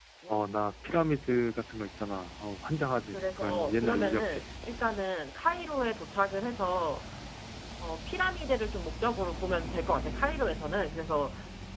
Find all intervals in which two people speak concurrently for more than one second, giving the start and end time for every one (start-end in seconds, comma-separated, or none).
3.1-4.4